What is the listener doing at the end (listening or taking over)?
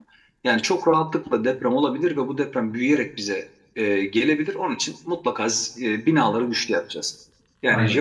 listening